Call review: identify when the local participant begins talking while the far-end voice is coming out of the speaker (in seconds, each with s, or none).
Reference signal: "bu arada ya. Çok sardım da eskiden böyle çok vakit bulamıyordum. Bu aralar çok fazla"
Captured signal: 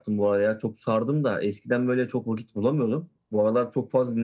none